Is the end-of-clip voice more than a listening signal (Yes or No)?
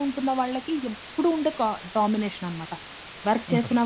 No